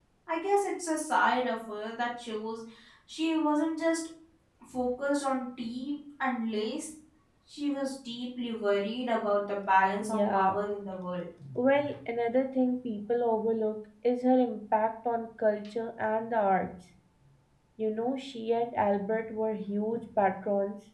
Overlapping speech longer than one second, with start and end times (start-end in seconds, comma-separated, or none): none